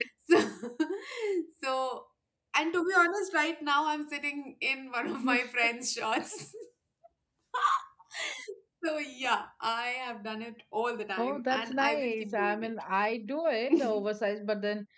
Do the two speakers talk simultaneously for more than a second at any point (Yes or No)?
Yes